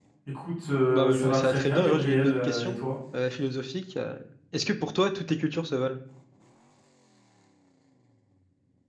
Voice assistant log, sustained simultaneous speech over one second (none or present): present